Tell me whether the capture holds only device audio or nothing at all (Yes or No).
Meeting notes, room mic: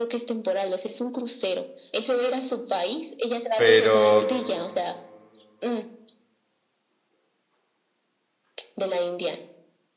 No